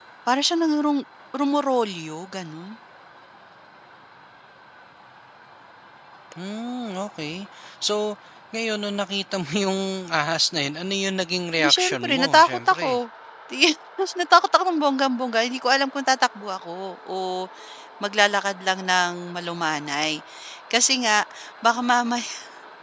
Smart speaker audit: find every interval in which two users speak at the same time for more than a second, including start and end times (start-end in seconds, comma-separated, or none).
11.6-12.9